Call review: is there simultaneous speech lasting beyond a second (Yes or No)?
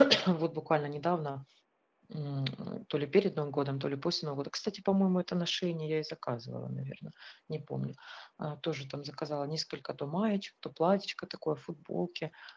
No